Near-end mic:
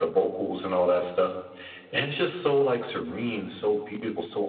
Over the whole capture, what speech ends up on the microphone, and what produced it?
echo only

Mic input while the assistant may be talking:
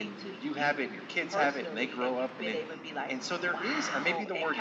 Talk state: echo only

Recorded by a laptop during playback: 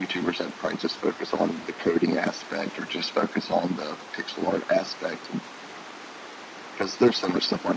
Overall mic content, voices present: echo only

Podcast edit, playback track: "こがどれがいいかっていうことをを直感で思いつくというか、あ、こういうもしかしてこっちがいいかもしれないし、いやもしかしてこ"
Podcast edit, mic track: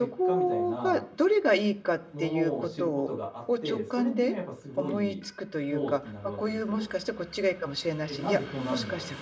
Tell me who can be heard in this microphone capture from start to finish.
both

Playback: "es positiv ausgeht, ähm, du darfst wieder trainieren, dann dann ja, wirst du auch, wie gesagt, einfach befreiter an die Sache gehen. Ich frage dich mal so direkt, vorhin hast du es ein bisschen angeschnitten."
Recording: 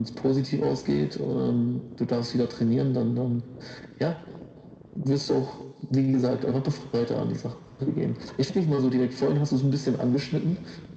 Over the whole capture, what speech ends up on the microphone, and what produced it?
echo only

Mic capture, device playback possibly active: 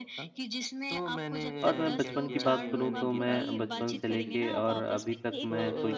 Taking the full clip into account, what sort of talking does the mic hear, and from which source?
both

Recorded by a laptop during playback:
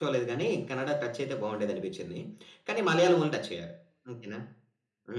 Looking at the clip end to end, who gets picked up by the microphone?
user only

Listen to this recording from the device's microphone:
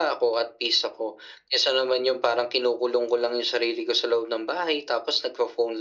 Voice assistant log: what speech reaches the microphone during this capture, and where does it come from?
echo only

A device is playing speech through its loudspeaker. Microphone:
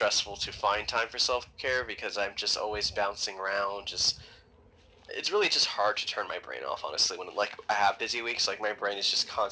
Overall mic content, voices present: echo only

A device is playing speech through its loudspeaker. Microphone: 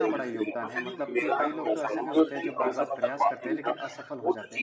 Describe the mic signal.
both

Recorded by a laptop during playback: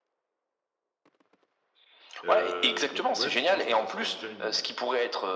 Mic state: both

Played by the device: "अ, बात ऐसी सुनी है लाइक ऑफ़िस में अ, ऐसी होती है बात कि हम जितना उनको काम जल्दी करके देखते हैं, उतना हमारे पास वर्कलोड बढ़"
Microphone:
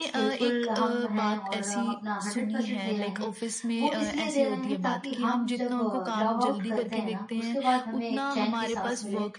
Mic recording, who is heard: both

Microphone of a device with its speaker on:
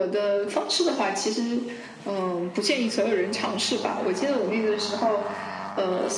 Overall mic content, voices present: echo only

